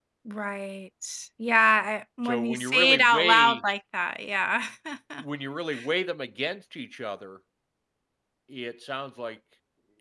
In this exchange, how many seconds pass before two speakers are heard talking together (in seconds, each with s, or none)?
2.2 s